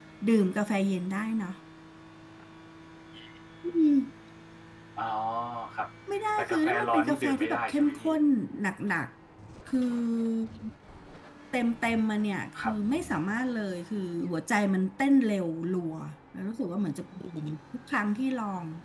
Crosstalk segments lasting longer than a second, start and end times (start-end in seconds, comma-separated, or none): 6.4-8.1